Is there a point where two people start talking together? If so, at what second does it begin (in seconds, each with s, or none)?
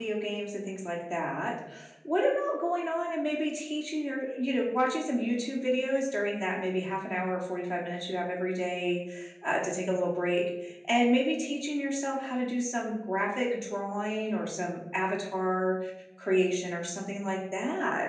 none